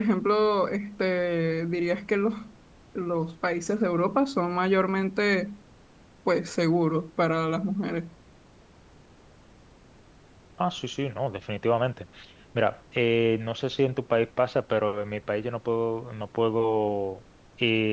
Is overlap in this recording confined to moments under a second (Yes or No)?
Yes